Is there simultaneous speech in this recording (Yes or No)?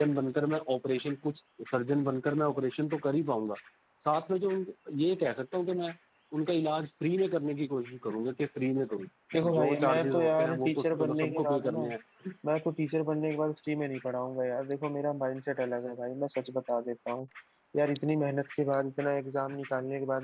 Yes